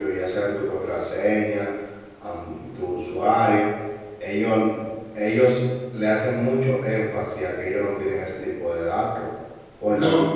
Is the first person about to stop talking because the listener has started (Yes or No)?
No